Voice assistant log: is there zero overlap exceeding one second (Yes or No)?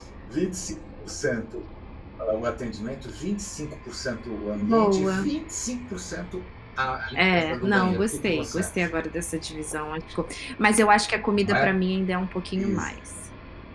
No